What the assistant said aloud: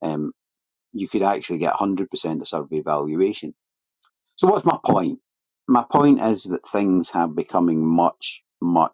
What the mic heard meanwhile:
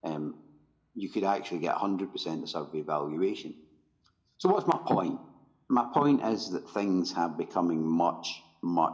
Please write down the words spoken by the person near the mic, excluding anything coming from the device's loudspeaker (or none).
none